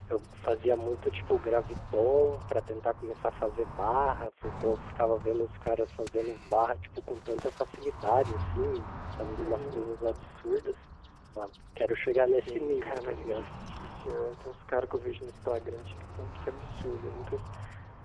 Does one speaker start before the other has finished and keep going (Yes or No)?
Yes